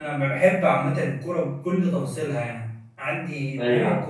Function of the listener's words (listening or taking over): listening